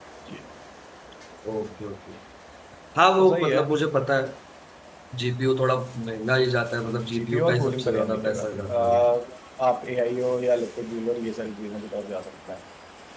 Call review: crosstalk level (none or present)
present